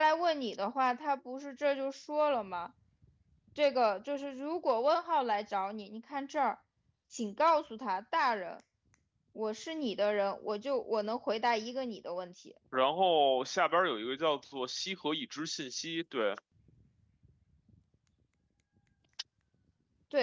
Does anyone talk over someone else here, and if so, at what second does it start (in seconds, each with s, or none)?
none